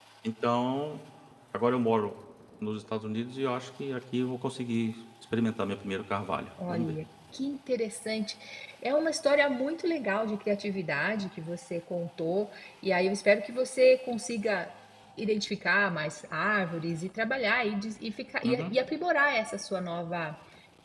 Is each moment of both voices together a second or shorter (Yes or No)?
Yes